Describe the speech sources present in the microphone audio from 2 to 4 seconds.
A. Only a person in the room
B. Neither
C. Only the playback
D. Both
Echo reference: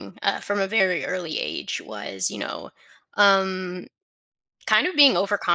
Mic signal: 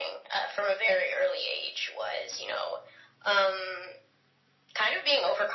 C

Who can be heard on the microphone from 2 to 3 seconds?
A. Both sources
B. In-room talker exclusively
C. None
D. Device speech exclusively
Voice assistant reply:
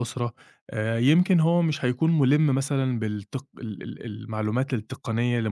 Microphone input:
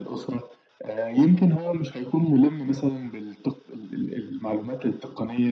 D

